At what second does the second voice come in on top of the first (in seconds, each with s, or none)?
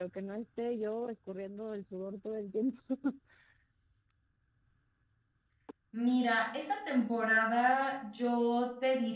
none